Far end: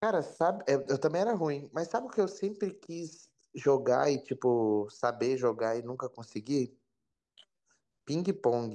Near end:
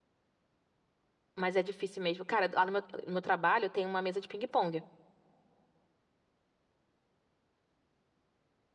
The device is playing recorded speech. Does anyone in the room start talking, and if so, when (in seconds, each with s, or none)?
1.4 s